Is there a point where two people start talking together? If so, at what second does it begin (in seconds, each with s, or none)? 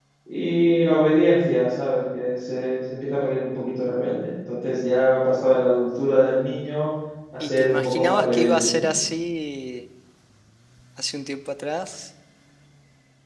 7.4 s